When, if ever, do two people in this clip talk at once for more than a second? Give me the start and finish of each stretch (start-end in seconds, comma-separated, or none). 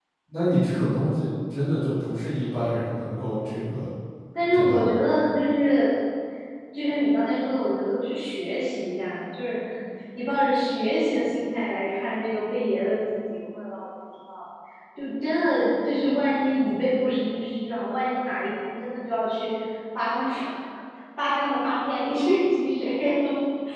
none